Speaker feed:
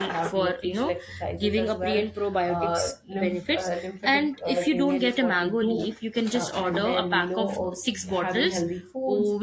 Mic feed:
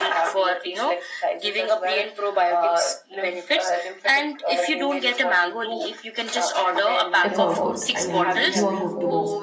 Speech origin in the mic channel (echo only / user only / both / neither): both